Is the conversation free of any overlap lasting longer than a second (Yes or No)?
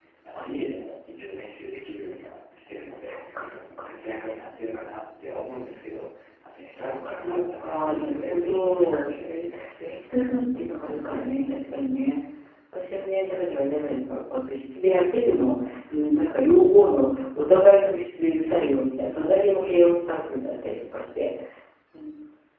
No